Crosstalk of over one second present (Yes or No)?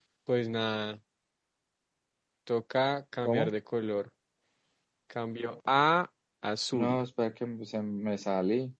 No